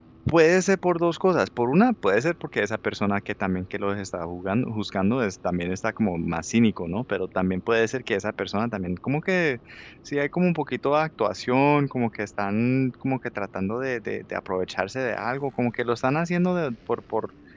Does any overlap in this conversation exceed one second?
No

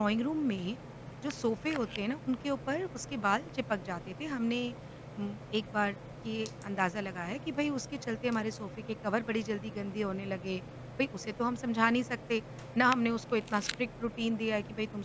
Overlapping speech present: No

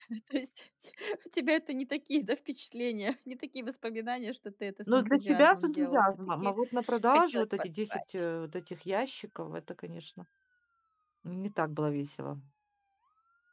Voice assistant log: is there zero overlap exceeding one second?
No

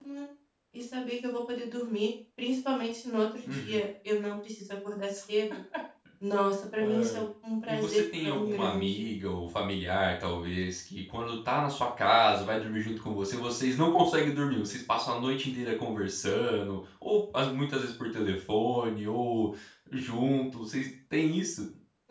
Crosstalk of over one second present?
Yes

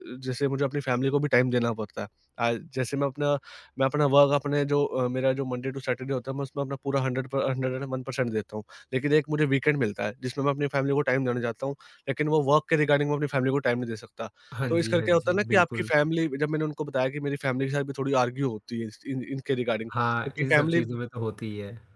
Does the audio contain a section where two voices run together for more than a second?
Yes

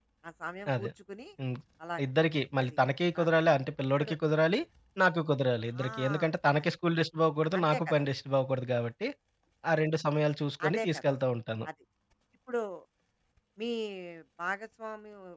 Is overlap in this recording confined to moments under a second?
Yes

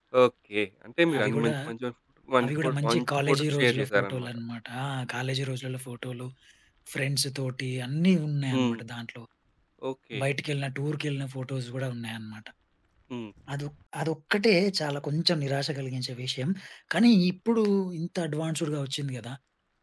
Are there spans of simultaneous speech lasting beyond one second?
Yes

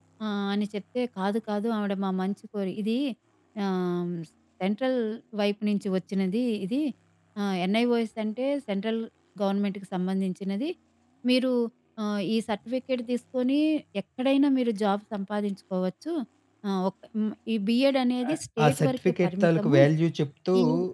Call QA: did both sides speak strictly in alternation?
No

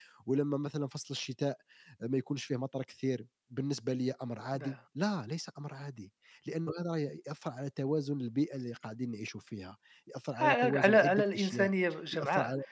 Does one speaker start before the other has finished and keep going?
Yes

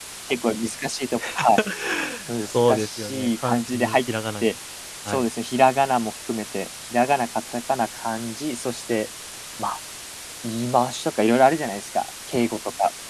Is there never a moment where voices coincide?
No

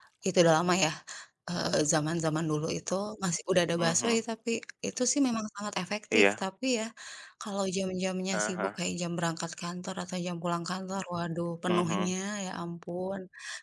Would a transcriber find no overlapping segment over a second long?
Yes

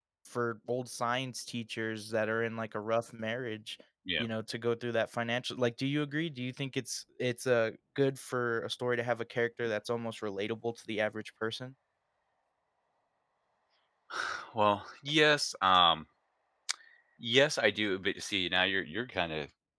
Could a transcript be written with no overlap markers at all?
Yes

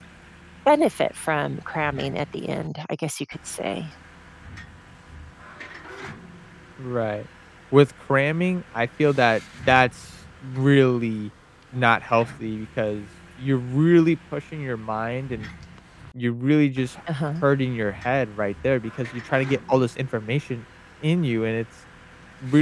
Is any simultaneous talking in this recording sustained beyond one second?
No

